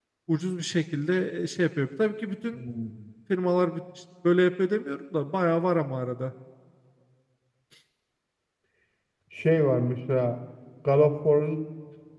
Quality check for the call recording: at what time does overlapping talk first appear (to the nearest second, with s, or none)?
none